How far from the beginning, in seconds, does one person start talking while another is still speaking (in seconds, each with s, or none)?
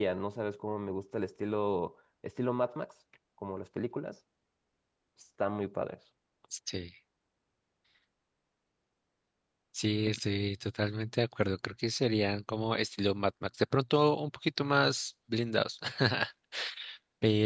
none